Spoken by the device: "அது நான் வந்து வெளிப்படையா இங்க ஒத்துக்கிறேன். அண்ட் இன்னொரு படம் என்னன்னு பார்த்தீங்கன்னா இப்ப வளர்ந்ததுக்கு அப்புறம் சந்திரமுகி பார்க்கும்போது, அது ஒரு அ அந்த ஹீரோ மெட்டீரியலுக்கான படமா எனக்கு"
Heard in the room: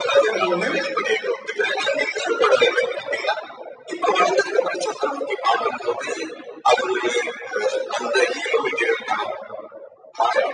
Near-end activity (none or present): present